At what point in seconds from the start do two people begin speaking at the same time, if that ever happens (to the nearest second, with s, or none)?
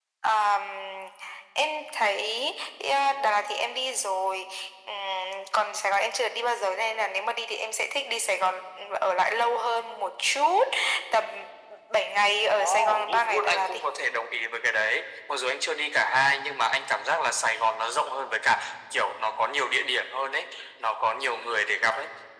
13 s